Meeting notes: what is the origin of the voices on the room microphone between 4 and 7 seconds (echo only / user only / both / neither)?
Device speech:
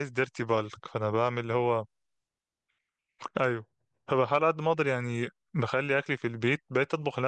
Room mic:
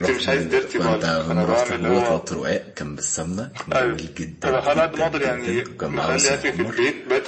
both